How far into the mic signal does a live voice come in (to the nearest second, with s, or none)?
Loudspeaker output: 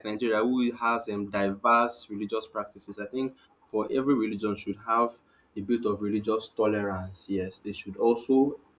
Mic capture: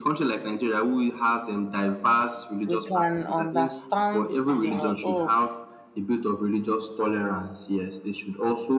3 s